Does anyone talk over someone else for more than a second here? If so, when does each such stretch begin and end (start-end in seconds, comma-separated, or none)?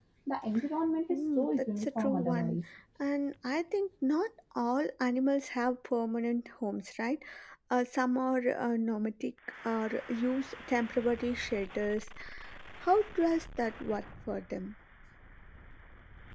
1.1-2.6